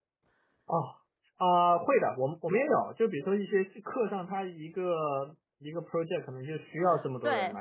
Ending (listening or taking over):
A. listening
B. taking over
B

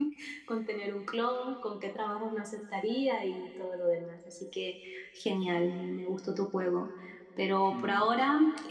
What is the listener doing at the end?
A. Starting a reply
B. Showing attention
B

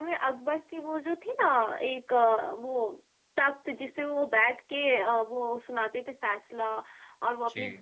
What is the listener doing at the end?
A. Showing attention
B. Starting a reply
A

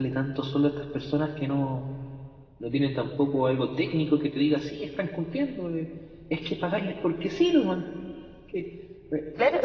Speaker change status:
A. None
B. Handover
B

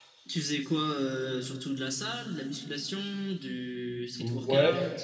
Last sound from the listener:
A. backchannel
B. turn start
B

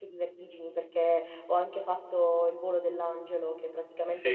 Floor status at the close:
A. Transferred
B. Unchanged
B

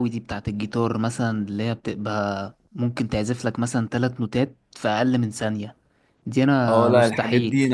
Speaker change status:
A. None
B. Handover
B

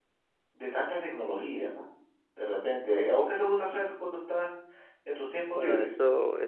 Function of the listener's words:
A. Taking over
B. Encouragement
A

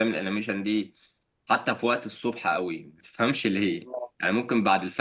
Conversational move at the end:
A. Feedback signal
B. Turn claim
A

